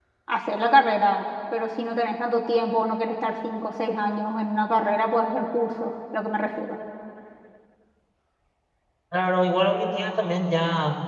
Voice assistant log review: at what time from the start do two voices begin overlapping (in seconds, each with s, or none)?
none